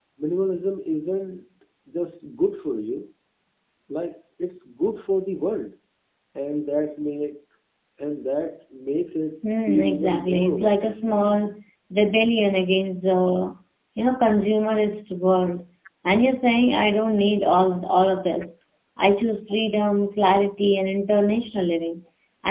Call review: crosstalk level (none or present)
present